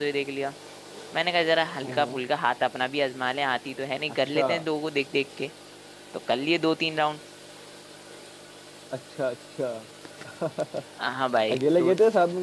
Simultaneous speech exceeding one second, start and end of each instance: none

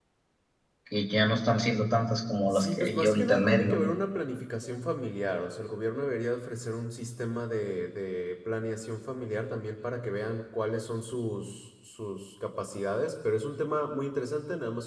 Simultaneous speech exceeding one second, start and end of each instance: 2.5-3.8

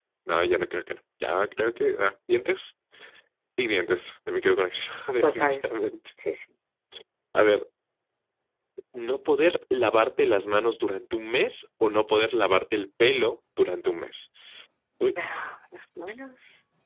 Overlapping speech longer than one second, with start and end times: none

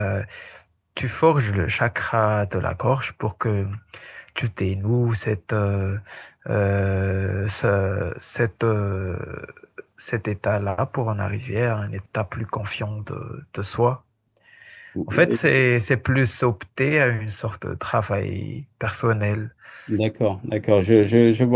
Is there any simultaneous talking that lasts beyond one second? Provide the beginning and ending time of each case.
none

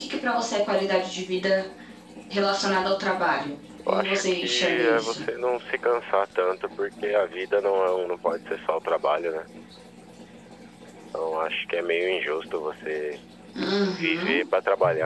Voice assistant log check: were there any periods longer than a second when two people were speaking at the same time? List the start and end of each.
3.9-5.2

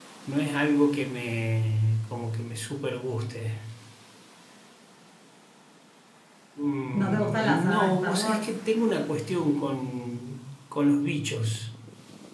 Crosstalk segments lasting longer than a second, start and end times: 6.9-8.5

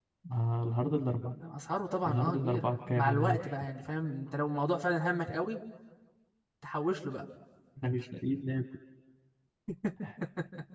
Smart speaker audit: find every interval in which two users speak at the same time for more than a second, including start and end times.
2.0-3.5

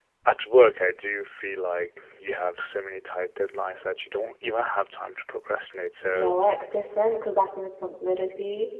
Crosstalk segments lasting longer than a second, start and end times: none

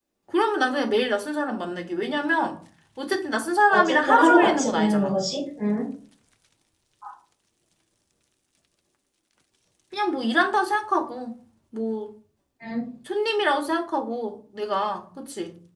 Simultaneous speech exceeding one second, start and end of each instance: 3.7-5.1

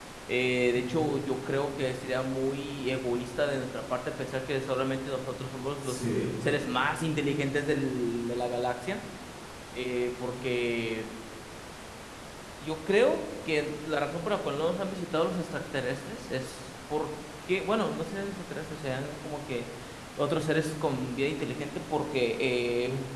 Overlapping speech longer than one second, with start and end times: none

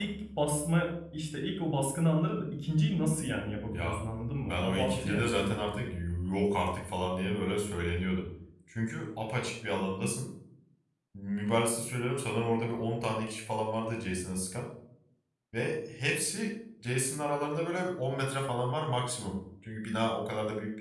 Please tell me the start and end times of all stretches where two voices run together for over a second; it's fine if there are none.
4.5-5.8

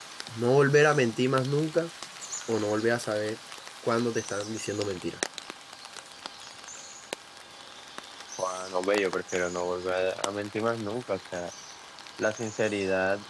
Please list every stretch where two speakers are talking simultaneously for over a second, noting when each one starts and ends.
none

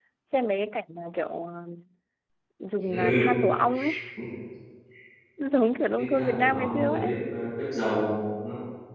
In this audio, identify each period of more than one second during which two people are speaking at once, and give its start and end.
6.0-7.2

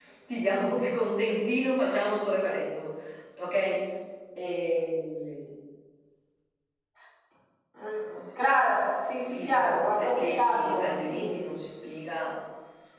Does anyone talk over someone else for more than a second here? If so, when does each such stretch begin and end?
9.2-11.3

